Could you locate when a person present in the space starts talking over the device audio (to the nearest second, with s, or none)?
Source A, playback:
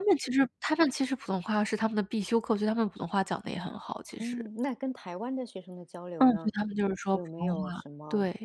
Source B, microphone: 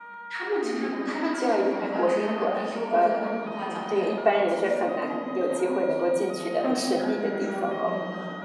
1 s